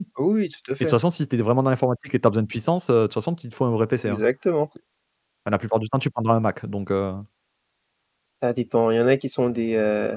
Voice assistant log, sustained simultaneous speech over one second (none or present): none